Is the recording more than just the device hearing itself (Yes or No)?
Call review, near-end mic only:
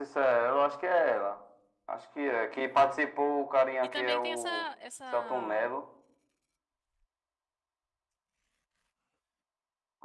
Yes